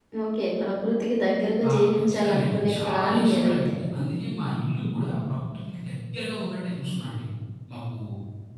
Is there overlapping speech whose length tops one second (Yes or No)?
Yes